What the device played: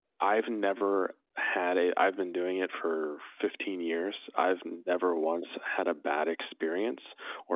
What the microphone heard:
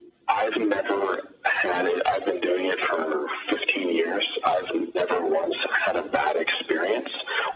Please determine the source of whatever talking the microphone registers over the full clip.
echo only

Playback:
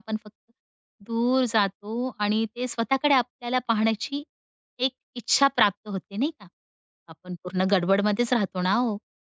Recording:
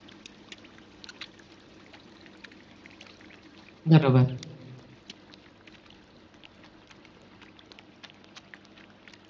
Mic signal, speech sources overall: user only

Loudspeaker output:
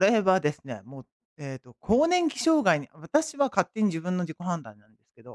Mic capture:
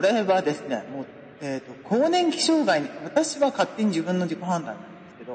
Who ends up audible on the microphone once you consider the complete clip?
echo only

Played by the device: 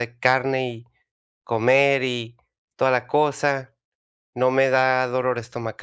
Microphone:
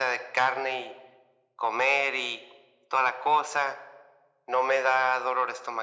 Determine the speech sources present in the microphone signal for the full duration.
echo only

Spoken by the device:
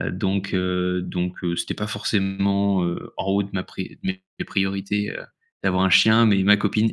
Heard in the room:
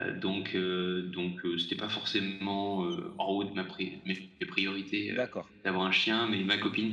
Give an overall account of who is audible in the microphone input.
both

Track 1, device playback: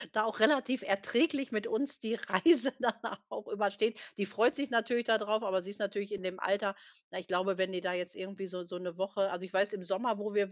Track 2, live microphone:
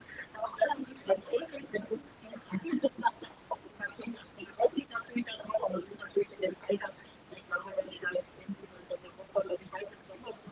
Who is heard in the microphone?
echo only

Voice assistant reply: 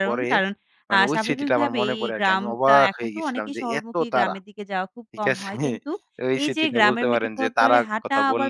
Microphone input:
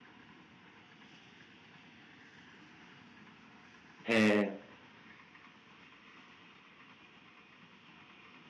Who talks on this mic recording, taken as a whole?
user only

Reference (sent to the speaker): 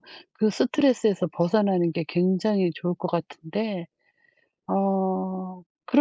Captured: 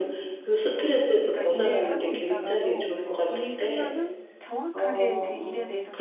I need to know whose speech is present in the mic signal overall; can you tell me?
both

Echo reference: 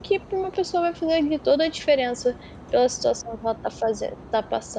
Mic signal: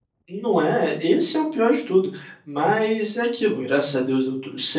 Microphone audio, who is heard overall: user only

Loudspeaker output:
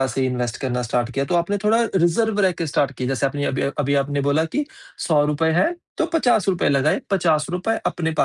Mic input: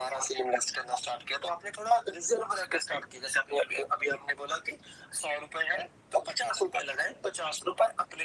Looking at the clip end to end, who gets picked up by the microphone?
echo only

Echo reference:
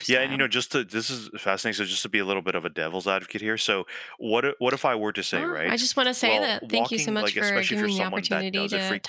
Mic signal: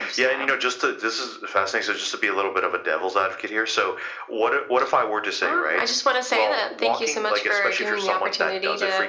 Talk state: echo only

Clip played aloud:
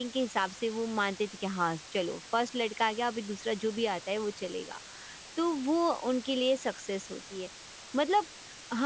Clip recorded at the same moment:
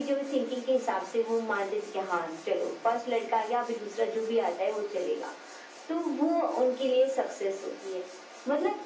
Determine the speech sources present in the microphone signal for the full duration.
echo only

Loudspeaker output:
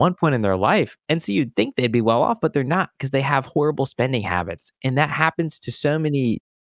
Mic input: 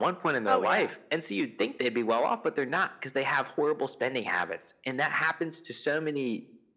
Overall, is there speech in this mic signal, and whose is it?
both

